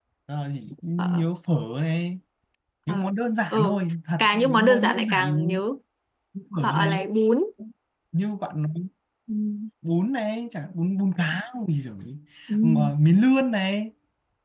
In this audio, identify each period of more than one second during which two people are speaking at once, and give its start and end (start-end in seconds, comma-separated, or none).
4.2-5.6